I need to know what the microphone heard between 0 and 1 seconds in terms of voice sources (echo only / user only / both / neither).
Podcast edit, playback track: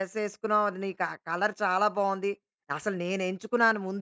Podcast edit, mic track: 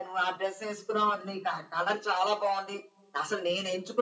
echo only